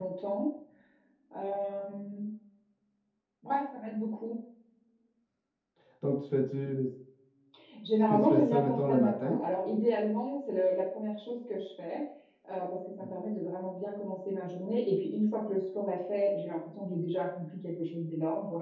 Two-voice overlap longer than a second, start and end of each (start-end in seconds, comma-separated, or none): 8.1-9.4